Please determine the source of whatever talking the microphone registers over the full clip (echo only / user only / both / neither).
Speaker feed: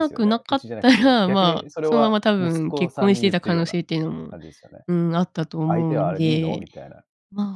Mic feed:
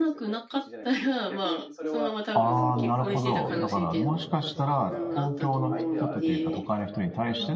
both